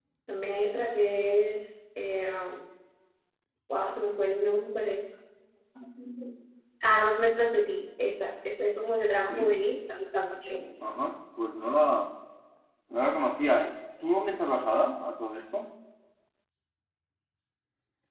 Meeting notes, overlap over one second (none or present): none